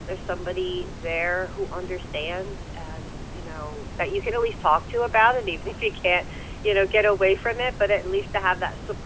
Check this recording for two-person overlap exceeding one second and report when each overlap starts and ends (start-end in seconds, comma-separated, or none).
none